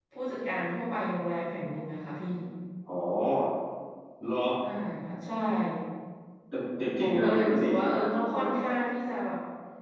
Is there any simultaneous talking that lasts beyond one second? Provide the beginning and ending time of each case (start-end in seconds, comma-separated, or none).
6.9-8.4